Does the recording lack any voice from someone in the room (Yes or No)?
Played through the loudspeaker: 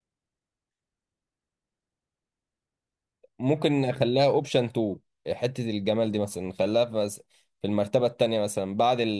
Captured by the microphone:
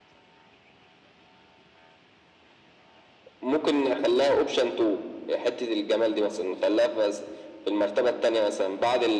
Yes